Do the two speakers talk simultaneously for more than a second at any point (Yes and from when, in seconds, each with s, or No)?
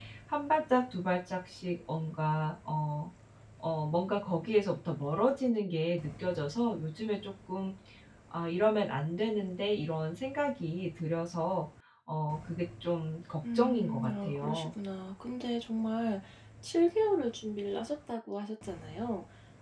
Yes, from 13.4 s